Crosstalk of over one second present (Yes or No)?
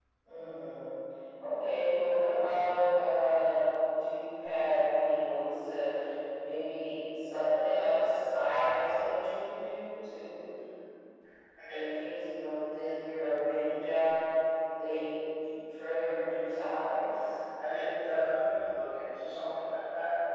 No